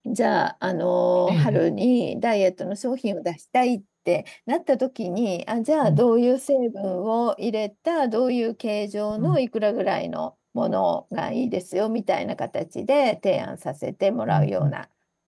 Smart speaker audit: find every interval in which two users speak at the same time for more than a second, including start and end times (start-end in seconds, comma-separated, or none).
none